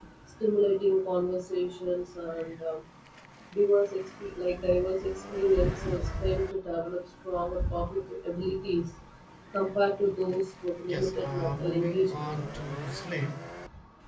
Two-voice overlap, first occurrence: 10.9 s

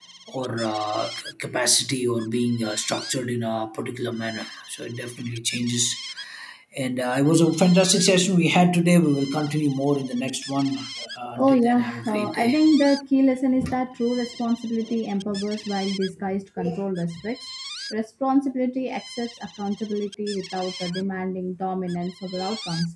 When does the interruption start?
11.3 s

